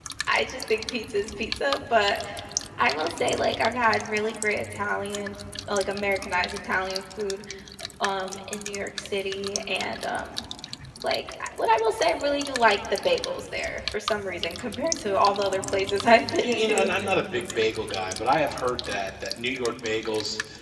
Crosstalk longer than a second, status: none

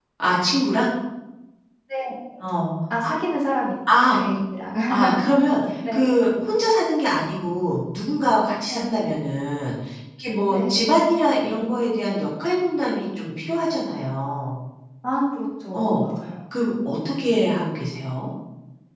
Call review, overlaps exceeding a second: none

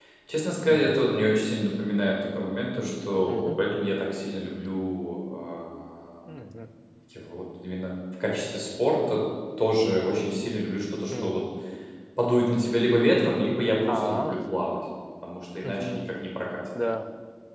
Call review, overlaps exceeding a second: none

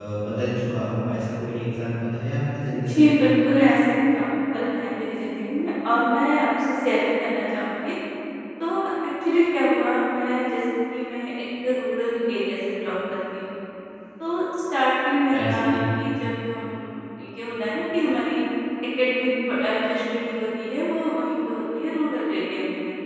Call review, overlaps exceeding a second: none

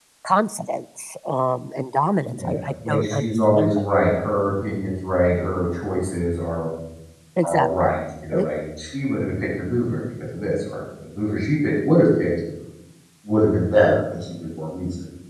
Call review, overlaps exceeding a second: present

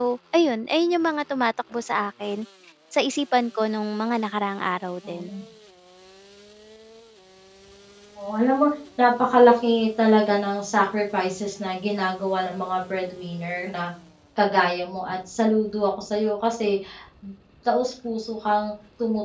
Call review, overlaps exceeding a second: none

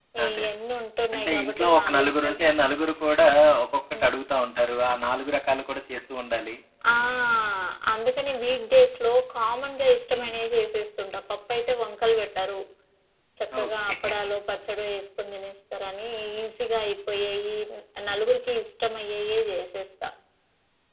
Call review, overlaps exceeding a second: present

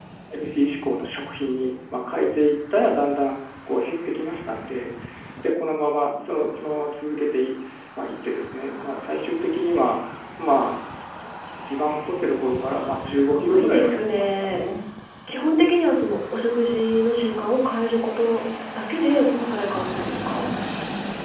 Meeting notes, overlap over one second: present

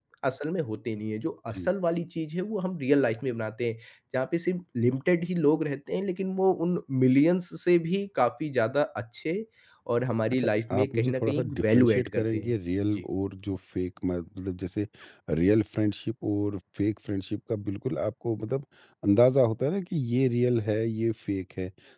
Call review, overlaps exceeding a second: present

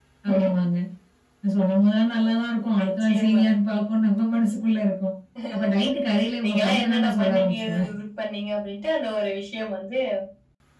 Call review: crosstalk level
present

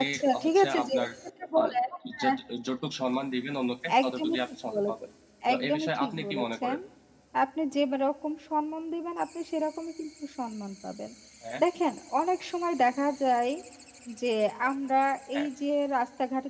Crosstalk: present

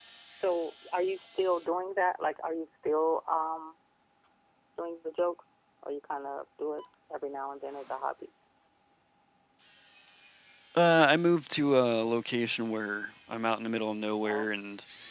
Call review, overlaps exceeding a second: none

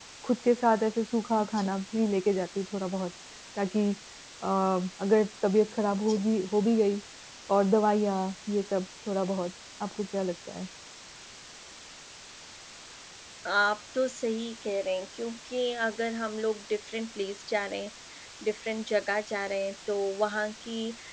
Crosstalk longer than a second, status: none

